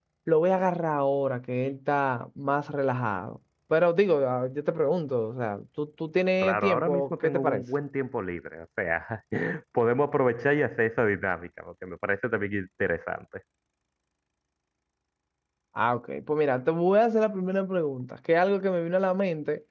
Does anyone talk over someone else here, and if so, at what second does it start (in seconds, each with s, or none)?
6.4 s